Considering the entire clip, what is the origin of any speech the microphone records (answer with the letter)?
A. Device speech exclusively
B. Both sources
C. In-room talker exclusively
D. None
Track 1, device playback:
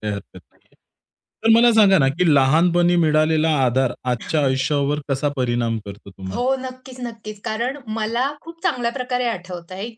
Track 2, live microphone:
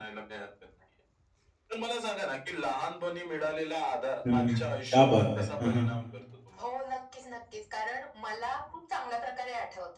B